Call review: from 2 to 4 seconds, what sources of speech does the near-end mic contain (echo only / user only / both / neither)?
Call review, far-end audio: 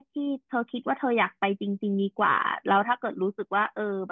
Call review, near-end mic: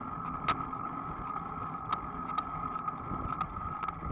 neither